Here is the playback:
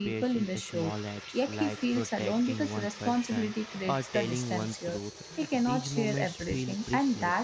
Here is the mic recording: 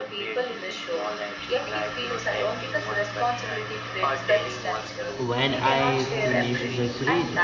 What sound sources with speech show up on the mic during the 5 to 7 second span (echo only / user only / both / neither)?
both